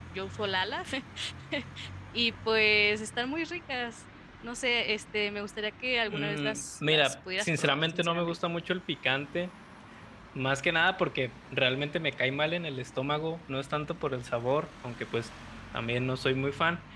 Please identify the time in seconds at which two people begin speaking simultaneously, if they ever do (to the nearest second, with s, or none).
6 s